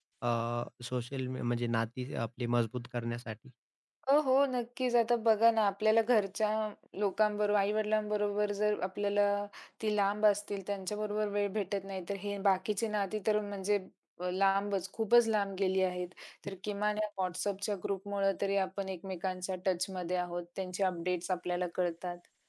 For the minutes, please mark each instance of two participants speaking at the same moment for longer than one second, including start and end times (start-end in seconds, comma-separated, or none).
none